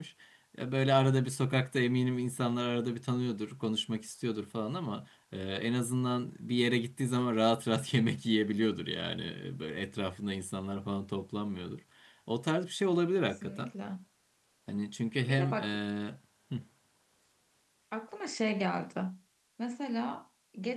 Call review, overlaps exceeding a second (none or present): none